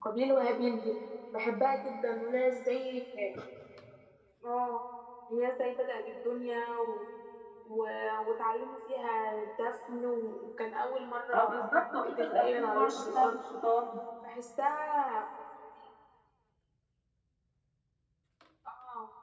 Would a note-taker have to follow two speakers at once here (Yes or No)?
Yes